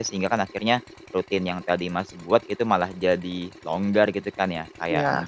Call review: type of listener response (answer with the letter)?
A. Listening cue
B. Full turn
A